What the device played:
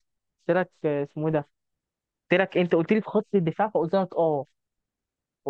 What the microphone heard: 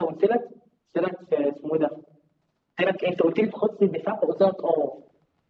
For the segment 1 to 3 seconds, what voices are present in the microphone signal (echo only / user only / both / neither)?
echo only